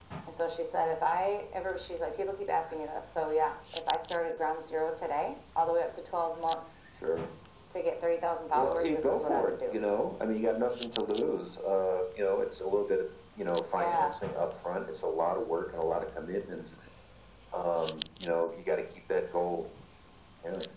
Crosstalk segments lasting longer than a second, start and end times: 8.5-9.7

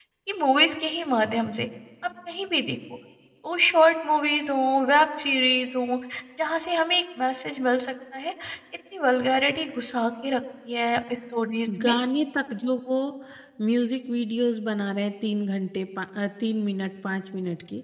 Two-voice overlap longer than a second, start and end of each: none

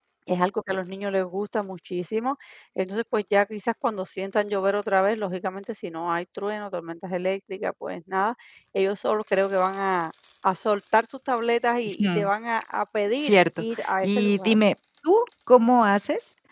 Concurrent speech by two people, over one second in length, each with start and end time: 13.2-14.6

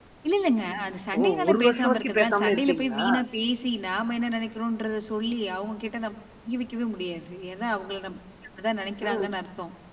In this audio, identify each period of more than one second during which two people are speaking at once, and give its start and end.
1.2-3.0

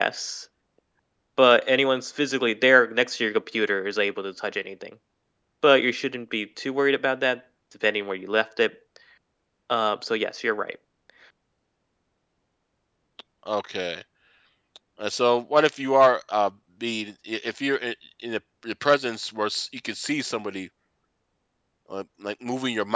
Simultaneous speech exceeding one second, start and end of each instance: none

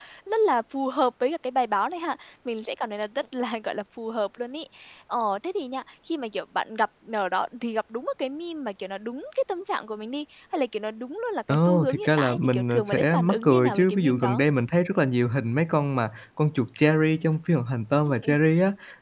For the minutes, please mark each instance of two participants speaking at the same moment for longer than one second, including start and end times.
11.5-14.4

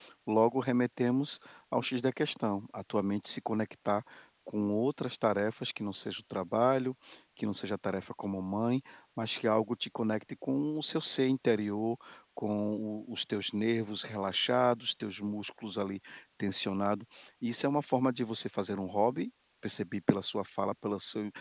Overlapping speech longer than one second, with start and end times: none

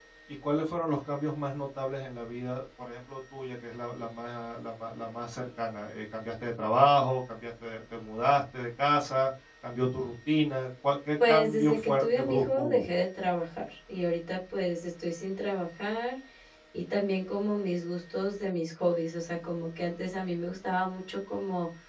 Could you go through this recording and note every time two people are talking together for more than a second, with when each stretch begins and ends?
11.3-12.9

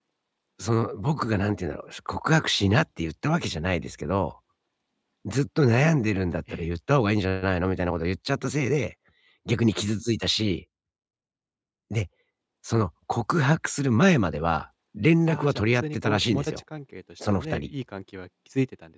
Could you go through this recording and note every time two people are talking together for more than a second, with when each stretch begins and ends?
15.3-16.6

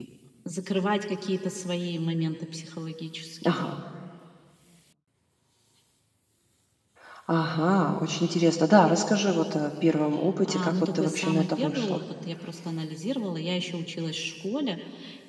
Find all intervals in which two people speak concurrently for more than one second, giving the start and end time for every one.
10.4-12.0

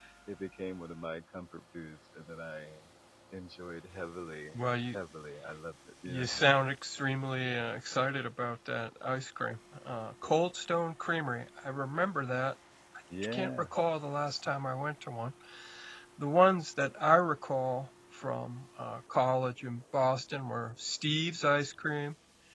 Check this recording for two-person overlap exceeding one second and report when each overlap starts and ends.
none

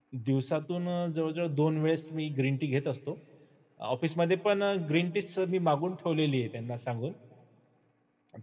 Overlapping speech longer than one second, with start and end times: none

